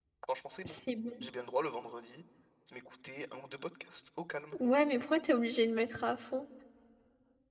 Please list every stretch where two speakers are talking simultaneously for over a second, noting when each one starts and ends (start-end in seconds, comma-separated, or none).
none